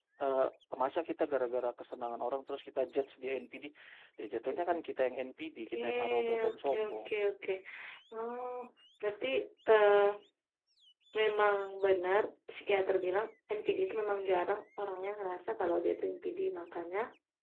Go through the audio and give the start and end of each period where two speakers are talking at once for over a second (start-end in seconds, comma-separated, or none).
5.7-7.1